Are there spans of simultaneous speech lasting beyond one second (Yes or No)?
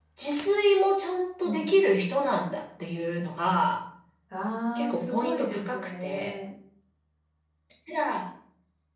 Yes